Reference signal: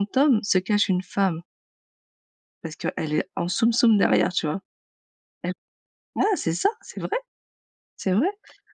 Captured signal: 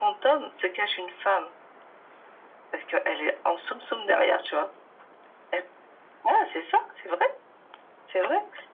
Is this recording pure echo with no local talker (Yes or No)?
Yes